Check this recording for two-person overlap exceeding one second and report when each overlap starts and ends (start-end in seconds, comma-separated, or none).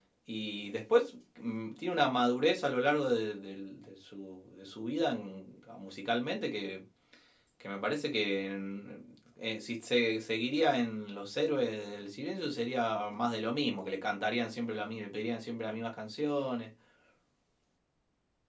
none